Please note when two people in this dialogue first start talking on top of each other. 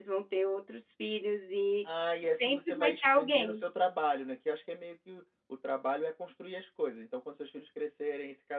2.3 s

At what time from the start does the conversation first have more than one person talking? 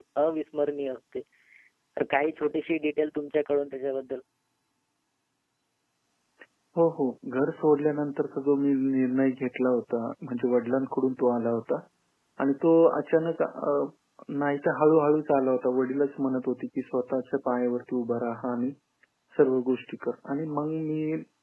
none

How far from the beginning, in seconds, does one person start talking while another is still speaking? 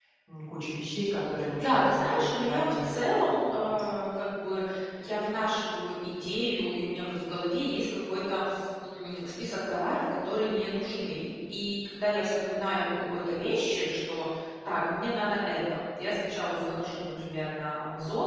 1.4 s

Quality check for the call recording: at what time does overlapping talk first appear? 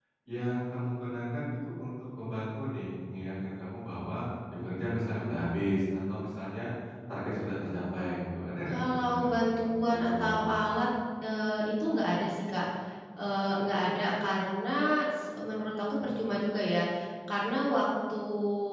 8.7 s

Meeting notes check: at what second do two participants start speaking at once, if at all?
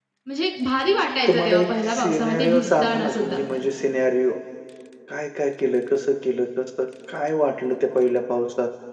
1.3 s

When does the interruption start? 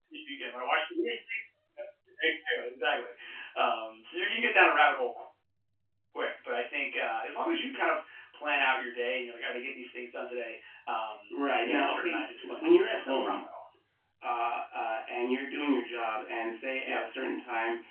11.6 s

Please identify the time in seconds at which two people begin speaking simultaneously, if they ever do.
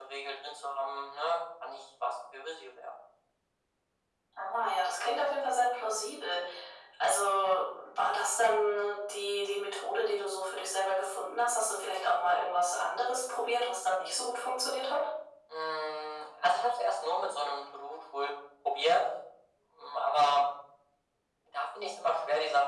none

